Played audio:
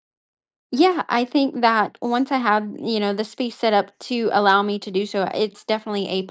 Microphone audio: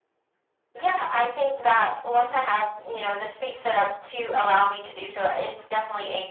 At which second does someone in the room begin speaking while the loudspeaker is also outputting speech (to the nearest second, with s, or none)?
none